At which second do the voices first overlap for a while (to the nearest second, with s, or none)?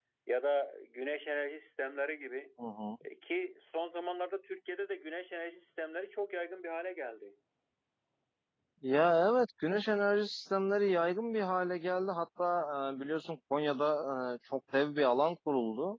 none